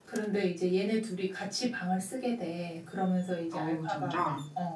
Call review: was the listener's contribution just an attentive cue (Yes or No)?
Yes